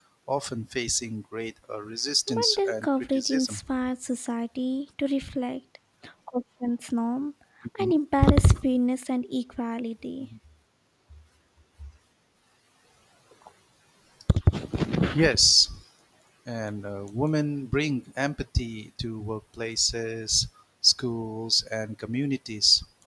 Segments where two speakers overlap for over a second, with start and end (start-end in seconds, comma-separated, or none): 2.3-3.6